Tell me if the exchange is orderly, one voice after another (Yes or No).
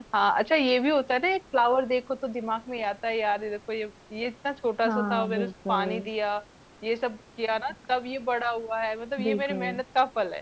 No